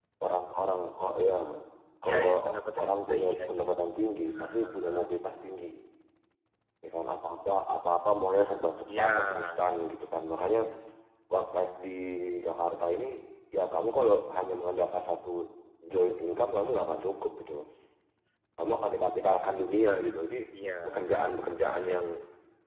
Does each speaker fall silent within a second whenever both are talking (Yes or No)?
No